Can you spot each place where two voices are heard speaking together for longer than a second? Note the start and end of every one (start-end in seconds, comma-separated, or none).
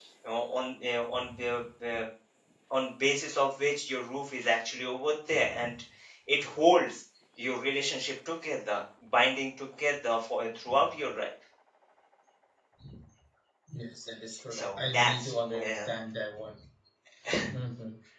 14.5-15.9